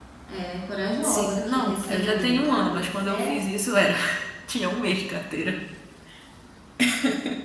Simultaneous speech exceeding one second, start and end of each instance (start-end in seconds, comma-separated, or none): 1.0-3.4